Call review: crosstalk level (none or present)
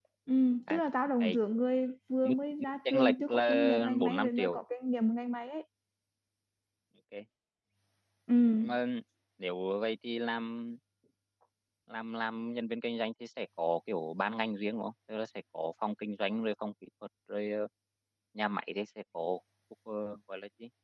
present